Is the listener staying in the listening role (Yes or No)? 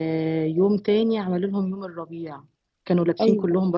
Yes